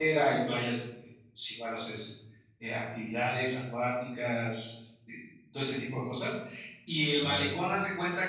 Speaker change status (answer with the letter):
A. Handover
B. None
B